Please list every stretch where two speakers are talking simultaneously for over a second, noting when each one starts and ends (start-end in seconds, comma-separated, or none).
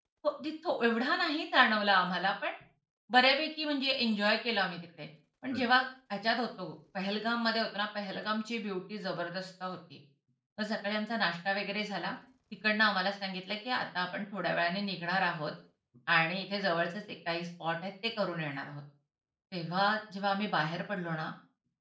none